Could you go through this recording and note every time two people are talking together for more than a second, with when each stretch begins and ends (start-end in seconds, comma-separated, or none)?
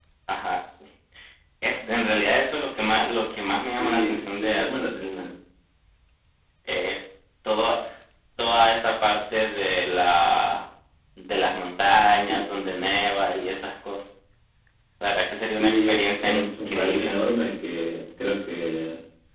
3.7-5.2, 15.5-17.1